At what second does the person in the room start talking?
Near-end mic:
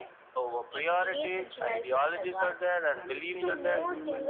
2.9 s

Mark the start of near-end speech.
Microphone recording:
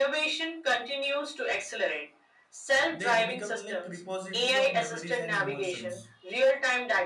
2.9 s

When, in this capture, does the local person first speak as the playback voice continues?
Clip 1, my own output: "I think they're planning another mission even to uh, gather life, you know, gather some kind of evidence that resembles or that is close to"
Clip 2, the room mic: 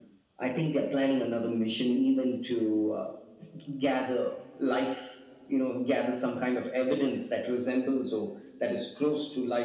none

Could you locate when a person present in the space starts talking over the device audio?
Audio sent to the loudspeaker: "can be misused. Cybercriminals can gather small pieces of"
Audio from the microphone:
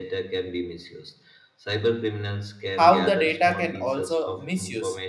2.7 s

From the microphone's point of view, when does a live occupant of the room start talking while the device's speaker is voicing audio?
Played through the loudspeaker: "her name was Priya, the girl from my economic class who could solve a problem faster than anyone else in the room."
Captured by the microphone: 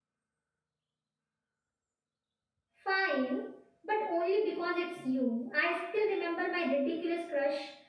2.8 s

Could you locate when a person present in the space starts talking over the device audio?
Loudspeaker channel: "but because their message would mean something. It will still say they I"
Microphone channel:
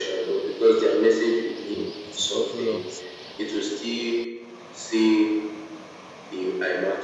1.6 s

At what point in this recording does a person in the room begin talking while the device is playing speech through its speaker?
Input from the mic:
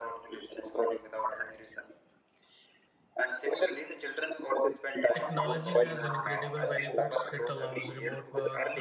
5.1 s

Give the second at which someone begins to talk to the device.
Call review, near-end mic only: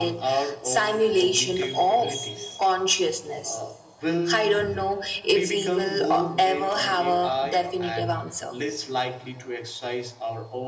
none

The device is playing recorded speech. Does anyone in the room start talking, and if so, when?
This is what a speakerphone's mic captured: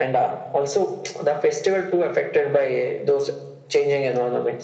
none

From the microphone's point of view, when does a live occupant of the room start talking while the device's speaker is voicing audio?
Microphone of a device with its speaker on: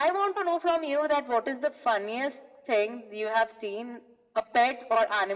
none

